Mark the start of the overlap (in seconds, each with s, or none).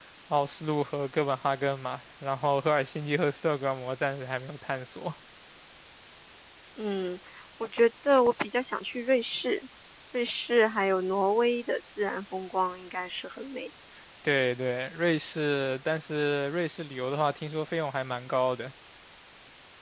none